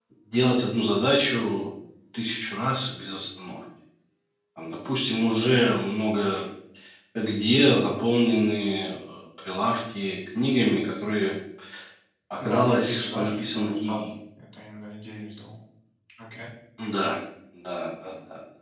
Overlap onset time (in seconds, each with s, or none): 12.4 s